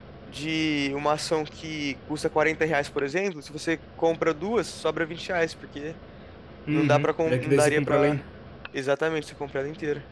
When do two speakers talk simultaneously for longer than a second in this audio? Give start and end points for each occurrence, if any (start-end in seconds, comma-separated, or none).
6.7-8.2